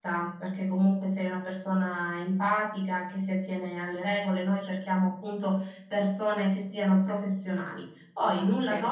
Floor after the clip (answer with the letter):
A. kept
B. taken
A